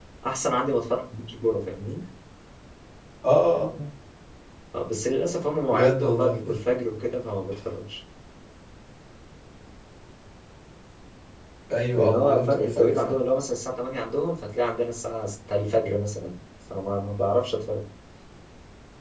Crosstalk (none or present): present